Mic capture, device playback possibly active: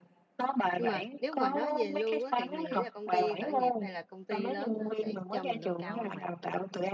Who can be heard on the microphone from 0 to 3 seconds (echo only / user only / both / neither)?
both